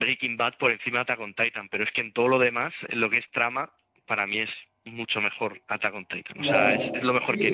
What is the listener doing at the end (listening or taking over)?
taking over